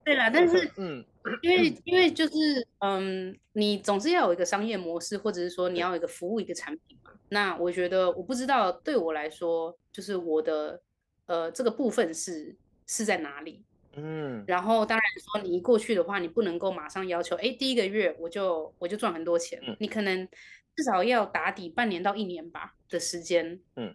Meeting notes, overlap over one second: none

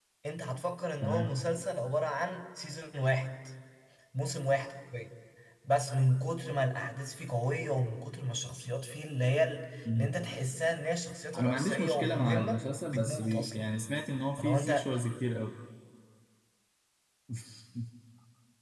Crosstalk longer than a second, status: present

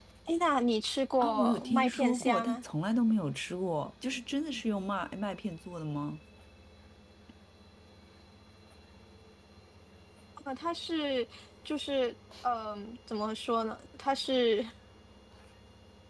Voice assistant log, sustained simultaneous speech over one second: present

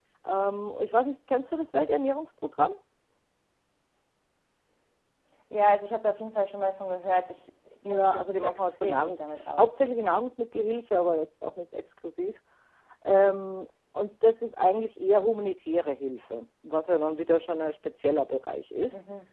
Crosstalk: present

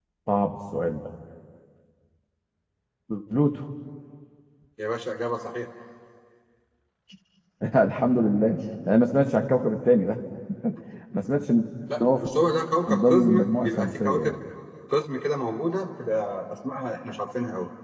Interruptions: present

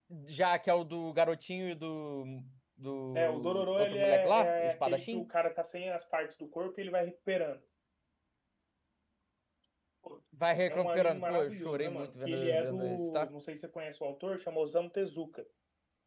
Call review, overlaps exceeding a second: present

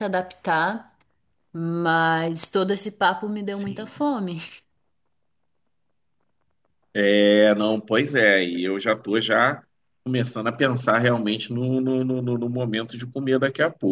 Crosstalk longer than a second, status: none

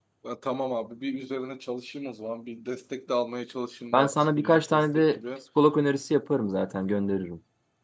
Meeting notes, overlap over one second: present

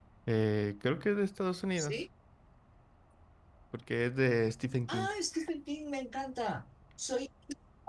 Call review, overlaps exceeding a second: none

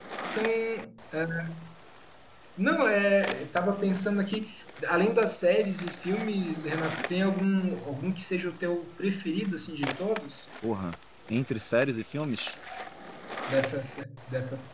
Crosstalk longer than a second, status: none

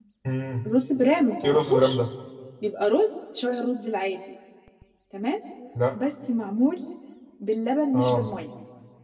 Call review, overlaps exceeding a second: none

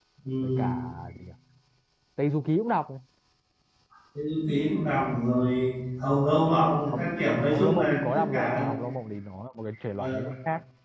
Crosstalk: present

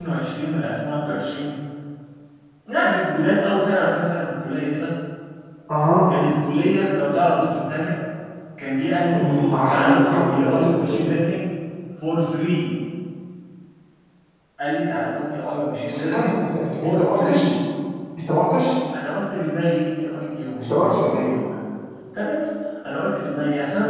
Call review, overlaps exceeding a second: present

